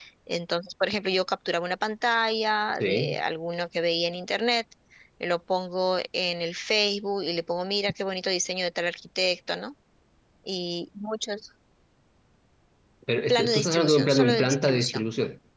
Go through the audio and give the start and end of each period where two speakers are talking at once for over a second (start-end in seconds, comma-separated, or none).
13.3-15.1